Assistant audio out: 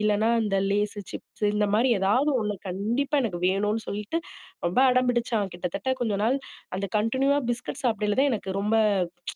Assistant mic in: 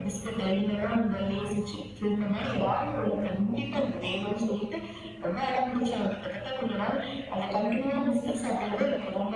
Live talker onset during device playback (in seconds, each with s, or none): none